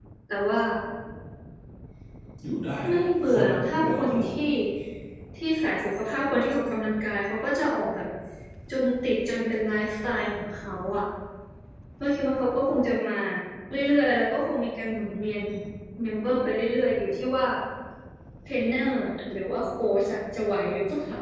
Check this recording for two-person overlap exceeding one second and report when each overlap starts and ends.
2.9-4.3

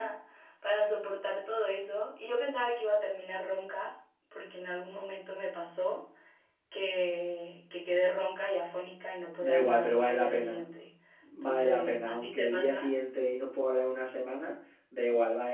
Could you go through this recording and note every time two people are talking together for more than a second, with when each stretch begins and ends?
9.4-10.7, 11.4-12.9

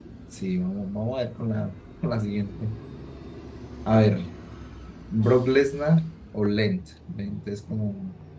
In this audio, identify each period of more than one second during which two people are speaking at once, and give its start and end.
none

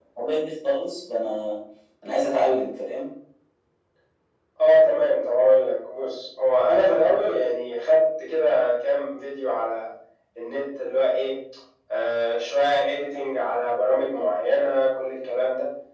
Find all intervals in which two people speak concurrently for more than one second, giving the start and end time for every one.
none

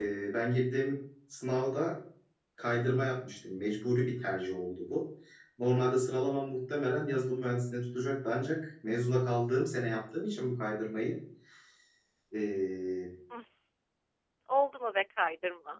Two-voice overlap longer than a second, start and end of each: none

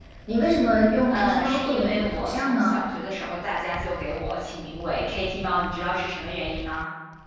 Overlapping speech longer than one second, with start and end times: 1.1-2.8

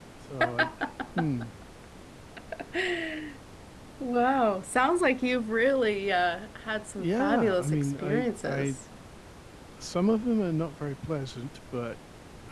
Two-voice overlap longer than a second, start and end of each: 7.0-8.8

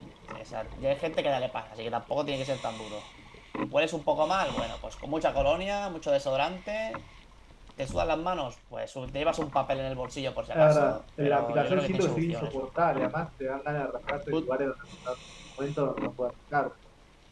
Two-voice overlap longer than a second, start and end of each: 10.5-12.6

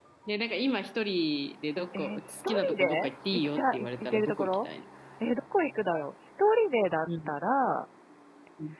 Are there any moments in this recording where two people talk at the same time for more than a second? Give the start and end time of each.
1.9-4.7

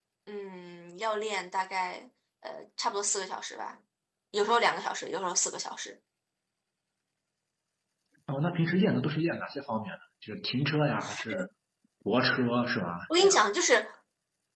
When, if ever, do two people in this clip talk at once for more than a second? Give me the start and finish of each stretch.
none

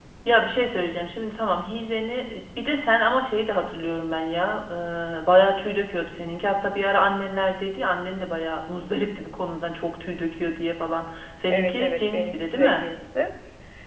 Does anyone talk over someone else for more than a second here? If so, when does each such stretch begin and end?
11.5-12.9

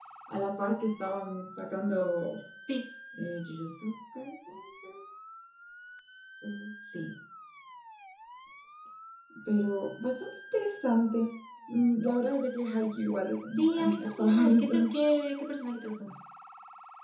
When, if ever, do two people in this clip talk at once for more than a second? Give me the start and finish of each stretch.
13.5-14.9

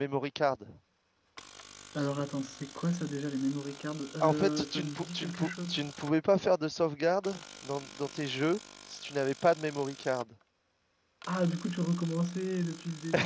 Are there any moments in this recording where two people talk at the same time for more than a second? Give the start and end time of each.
4.2-5.8

